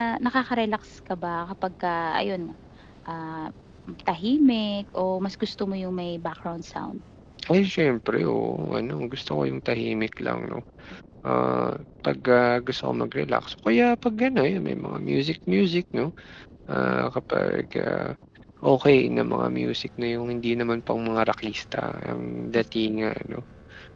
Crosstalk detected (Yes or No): No